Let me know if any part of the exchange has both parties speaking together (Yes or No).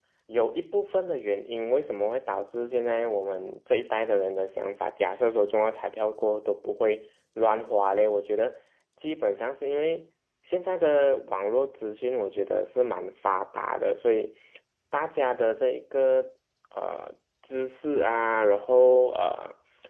No